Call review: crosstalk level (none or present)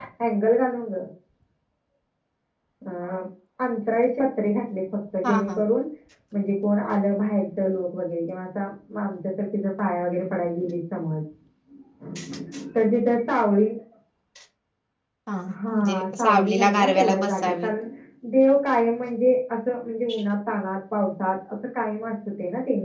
present